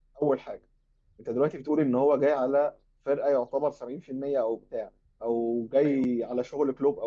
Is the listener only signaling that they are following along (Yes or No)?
Yes